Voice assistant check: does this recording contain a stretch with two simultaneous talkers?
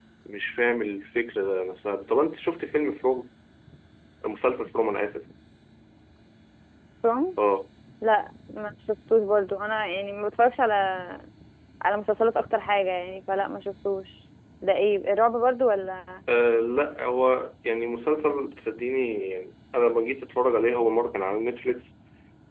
No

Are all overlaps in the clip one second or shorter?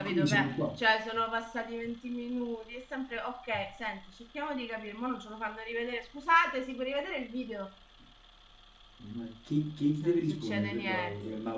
No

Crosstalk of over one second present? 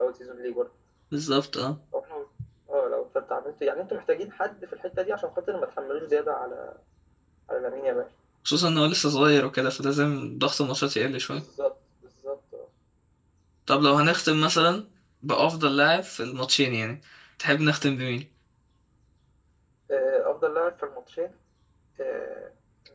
No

